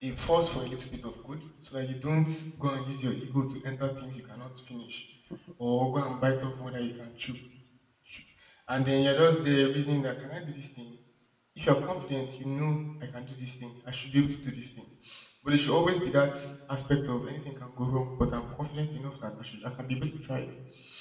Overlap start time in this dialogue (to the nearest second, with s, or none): none